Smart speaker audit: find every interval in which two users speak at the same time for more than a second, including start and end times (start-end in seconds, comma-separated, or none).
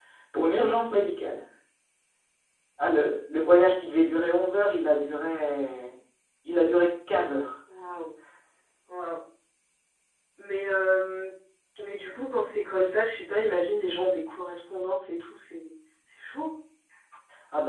none